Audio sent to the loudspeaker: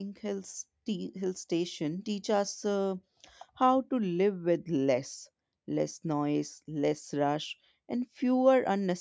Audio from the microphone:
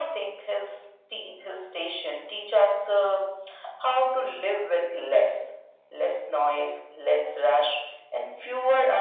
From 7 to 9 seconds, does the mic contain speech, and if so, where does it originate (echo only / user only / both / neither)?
echo only